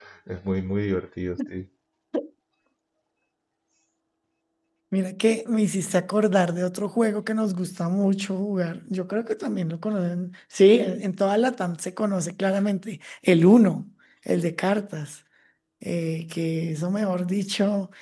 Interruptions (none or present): none